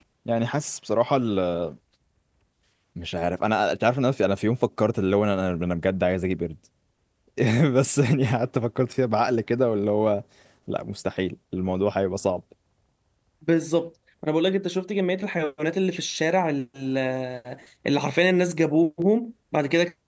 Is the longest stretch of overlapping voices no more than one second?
Yes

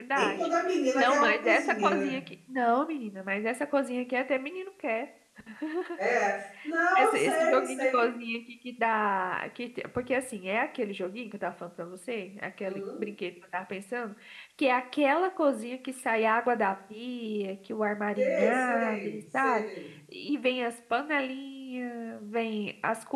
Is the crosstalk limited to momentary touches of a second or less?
No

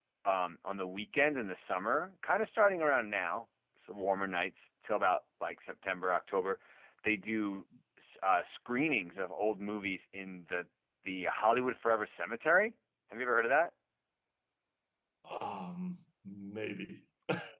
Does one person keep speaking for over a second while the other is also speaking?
No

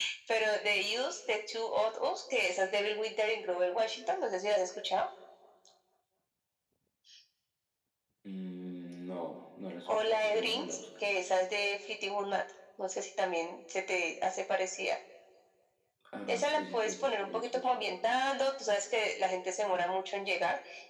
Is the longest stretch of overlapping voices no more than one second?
No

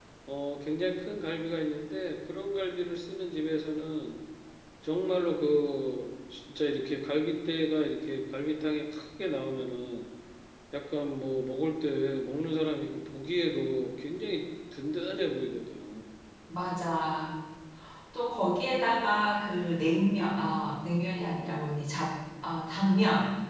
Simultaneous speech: No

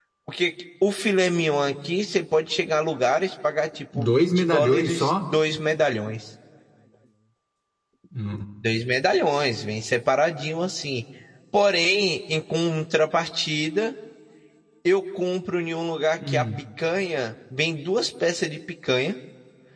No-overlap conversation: No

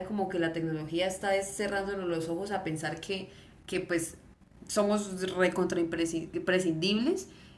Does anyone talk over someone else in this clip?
No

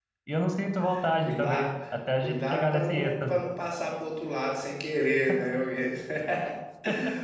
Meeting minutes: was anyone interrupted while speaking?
Yes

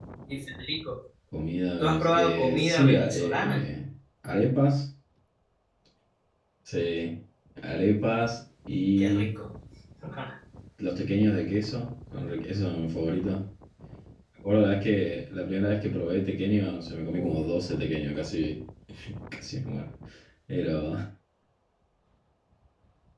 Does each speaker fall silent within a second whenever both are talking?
No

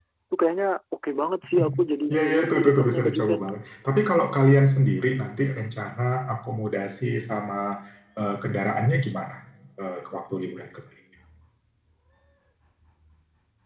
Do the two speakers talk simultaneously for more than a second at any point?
Yes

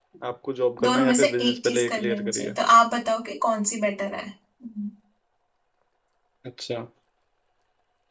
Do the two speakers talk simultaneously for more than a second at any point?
Yes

